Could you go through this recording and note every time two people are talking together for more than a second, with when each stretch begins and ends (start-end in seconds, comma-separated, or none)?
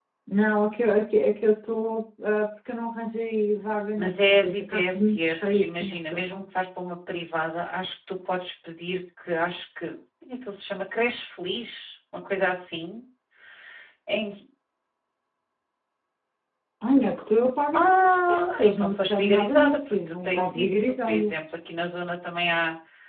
4.0-6.4, 17.7-21.3